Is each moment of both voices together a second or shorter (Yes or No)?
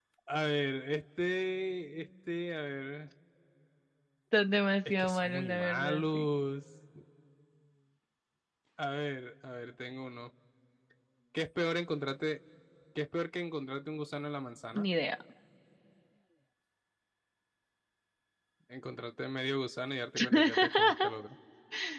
No